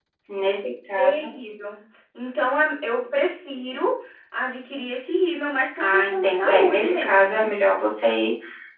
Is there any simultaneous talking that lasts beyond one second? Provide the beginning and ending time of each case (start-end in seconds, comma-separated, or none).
5.8-7.5